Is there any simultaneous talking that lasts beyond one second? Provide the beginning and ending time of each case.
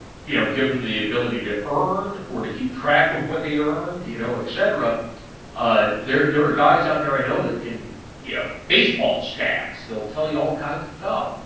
none

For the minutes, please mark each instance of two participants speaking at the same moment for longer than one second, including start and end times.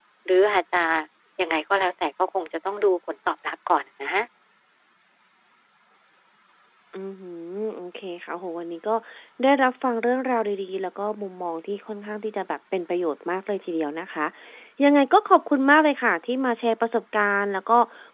none

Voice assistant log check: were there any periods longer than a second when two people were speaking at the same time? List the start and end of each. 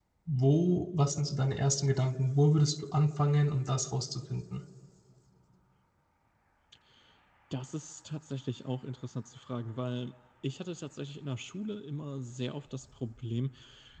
none

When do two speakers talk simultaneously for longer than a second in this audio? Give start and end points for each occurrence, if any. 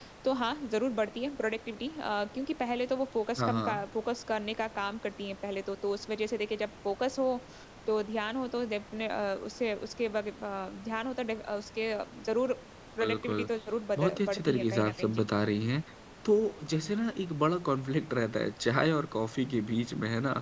14.0-15.2

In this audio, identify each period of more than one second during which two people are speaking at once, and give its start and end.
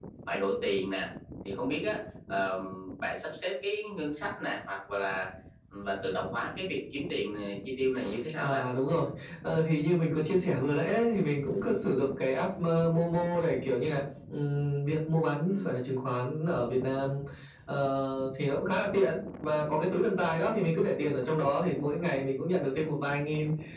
none

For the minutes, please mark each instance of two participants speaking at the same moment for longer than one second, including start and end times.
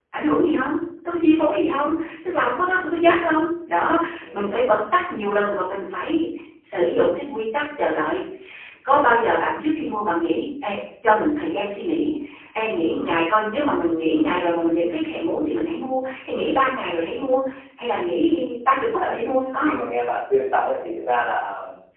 none

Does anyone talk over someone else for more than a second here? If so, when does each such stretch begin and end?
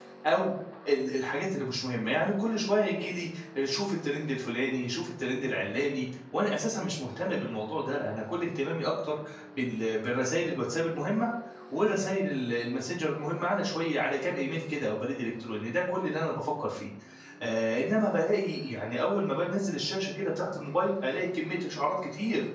none

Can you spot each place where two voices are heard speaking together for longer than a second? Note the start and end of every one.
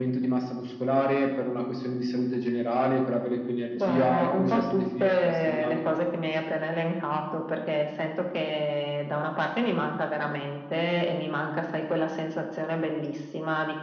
3.8-5.8

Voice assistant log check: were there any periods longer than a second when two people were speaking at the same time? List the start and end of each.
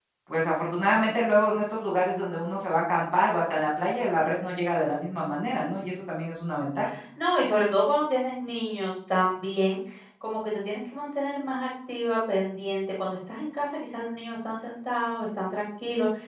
none

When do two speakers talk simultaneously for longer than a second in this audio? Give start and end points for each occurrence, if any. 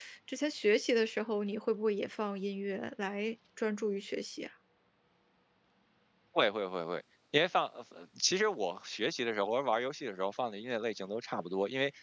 none

